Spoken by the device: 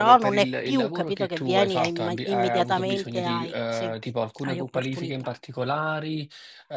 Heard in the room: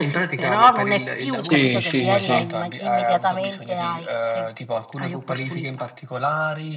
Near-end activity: present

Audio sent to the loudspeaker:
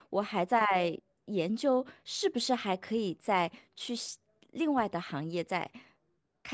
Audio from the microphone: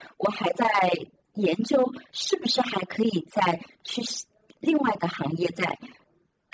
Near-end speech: none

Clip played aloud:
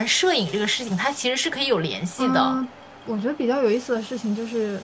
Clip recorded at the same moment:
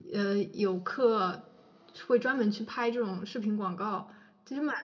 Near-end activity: present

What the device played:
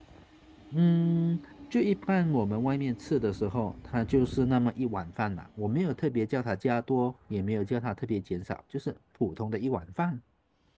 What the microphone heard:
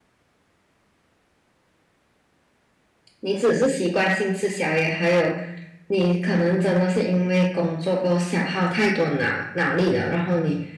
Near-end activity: present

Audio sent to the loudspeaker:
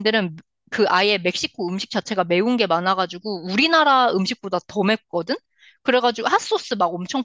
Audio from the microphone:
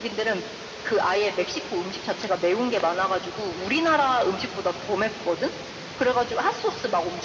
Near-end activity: none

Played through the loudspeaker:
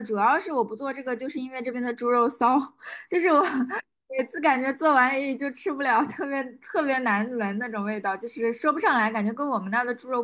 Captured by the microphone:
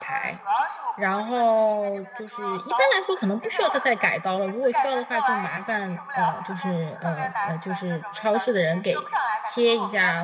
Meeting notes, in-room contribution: present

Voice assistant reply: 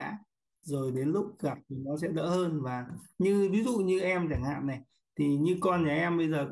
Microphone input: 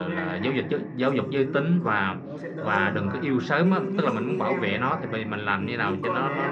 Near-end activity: present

